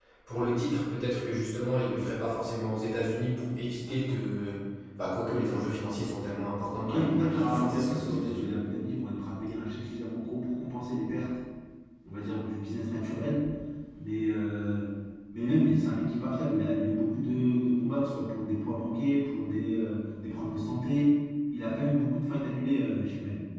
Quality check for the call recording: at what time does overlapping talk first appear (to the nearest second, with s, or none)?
7 s